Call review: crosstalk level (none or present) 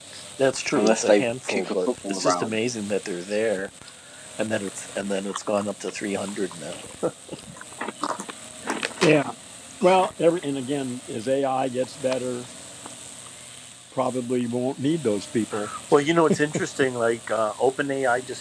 present